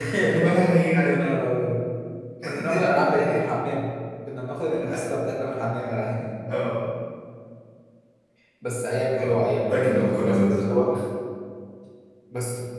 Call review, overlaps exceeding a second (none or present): present